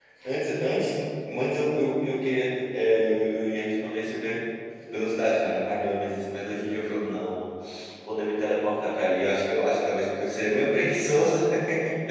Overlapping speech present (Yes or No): No